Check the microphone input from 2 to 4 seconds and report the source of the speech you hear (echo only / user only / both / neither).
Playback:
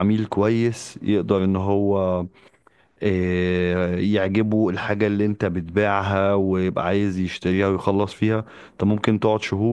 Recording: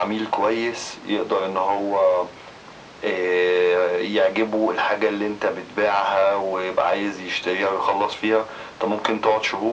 echo only